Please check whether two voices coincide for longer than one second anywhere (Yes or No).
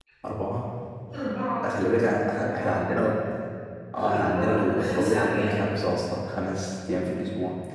Yes